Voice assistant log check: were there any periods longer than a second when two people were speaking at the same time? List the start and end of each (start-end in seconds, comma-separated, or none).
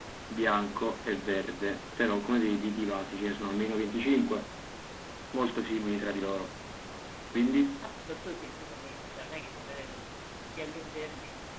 none